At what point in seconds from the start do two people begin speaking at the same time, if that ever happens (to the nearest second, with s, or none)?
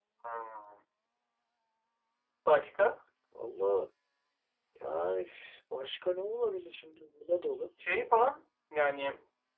none